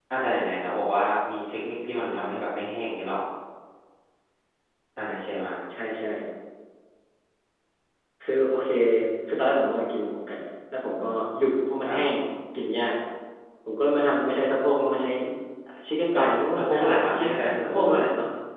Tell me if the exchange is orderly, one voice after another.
No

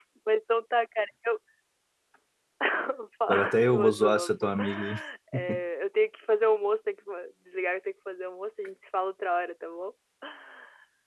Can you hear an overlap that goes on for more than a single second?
Yes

